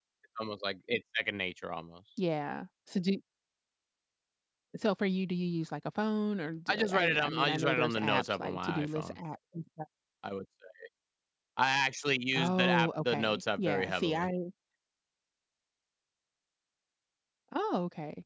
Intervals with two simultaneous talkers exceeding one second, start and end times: 6.7-9.2, 12.4-14.3

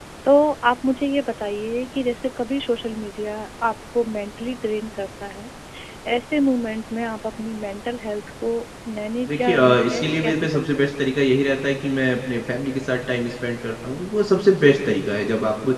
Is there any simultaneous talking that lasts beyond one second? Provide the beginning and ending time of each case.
9.3-10.9

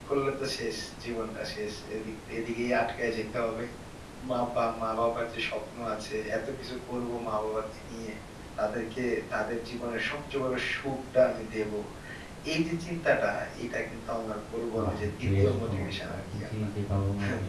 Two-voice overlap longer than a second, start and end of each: 14.8-16.5

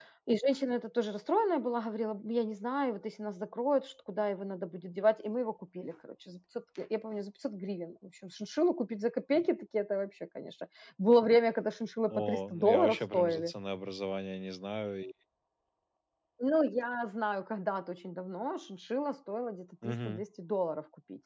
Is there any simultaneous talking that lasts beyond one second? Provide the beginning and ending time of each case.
12.1-13.5

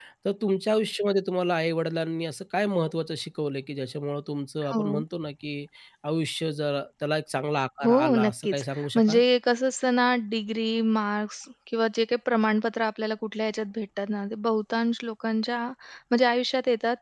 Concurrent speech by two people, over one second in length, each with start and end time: 7.8-9.2

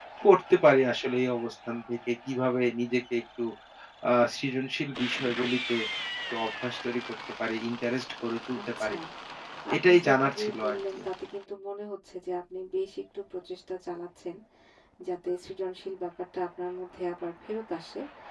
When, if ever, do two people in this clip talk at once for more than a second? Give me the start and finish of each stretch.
9.8-11.0

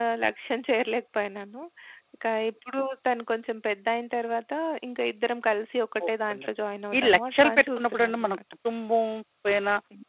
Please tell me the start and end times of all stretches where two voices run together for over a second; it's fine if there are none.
7.0-8.4

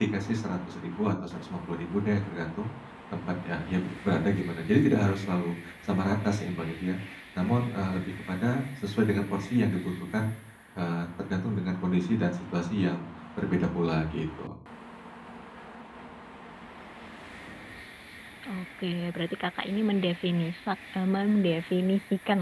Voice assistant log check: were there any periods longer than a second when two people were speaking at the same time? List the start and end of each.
none

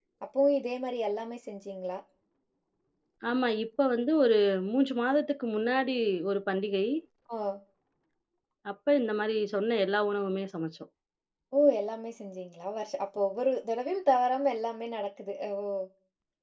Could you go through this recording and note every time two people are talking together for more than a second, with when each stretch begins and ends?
none

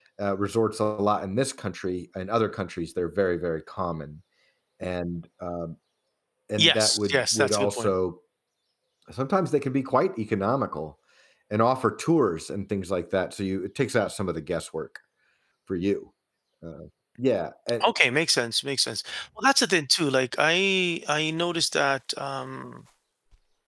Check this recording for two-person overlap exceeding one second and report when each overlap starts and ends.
6.6-7.9

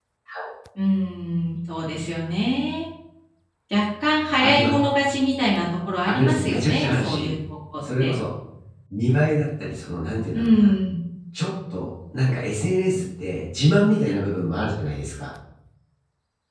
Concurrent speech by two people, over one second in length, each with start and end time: 6.1-7.4

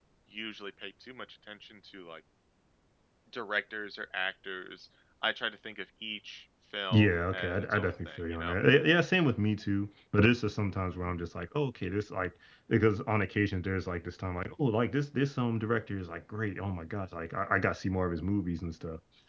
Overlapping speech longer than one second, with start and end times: 6.9-8.6

